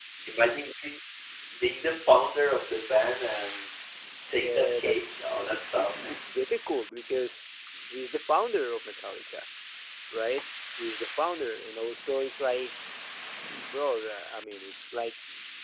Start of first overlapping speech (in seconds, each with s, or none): 4.3 s